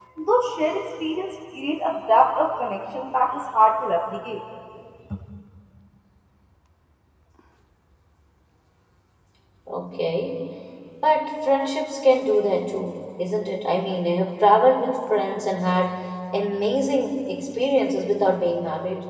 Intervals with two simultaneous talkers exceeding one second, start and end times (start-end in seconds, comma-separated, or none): none